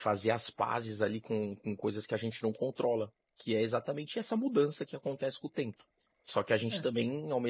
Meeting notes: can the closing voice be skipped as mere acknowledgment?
Yes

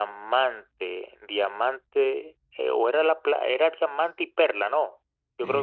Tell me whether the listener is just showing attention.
No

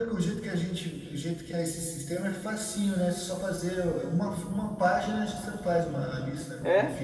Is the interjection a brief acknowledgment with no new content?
No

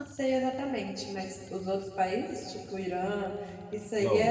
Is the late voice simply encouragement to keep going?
No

